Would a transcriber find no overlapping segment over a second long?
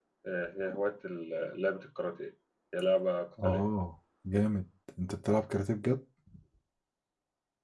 Yes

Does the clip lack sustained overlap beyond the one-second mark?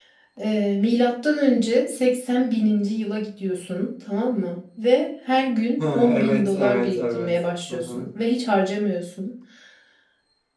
No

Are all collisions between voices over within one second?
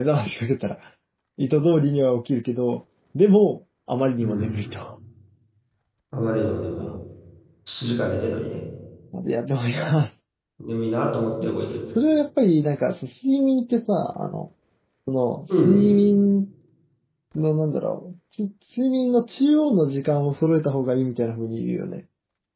Yes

